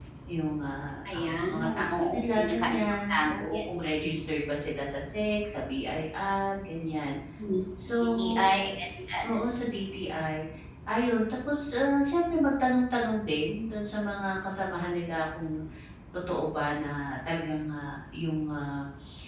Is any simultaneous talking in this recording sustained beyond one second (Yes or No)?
Yes